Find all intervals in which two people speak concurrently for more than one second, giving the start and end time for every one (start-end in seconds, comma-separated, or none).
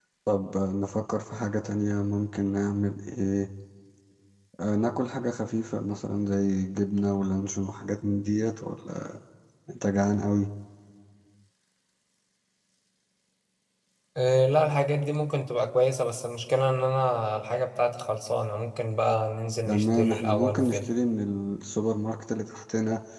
19.6-20.9